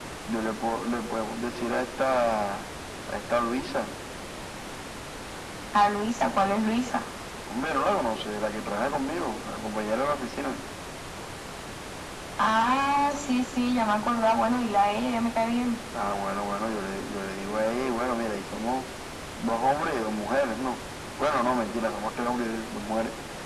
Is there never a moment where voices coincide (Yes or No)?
Yes